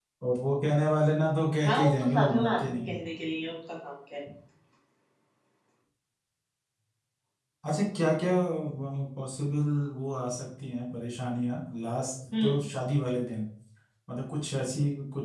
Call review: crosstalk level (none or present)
present